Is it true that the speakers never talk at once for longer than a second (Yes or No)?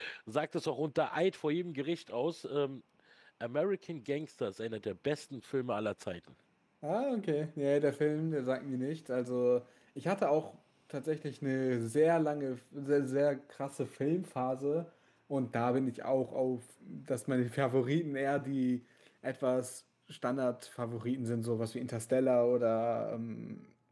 Yes